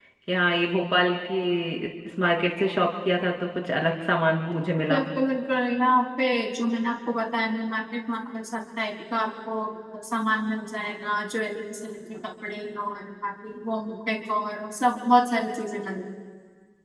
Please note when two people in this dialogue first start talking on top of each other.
none

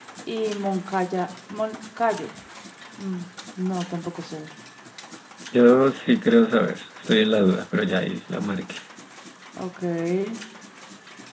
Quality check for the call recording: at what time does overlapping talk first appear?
none

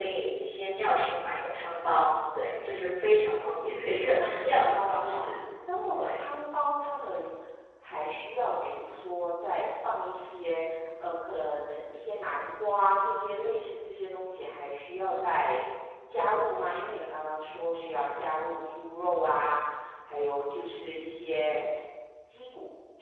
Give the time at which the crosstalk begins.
4.0 s

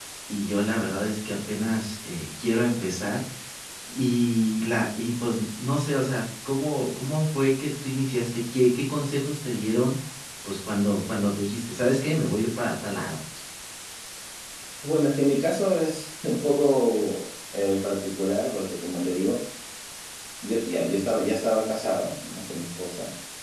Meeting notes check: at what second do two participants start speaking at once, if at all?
none

